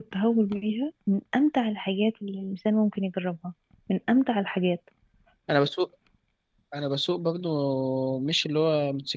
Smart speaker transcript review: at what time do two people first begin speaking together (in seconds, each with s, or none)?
none